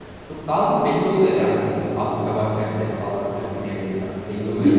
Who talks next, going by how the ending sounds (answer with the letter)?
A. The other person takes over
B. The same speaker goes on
A